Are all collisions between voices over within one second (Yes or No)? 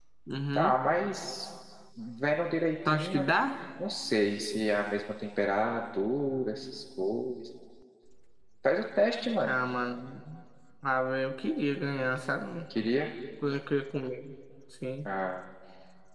Yes